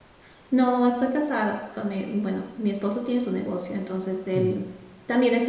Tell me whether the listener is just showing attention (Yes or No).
Yes